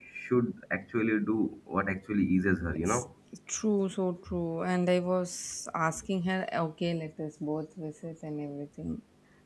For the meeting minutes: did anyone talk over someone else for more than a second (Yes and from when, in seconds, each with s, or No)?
No